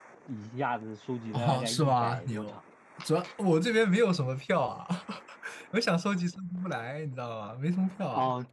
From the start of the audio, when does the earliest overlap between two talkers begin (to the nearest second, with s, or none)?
1 s